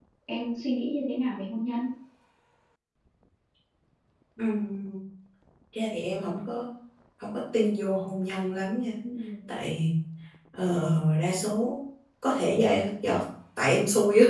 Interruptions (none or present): none